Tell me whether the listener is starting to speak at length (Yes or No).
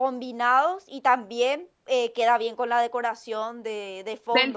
Yes